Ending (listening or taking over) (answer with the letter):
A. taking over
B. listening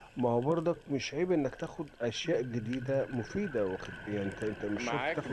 A